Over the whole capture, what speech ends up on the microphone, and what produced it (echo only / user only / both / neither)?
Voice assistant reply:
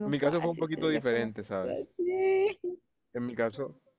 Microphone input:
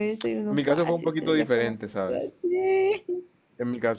echo only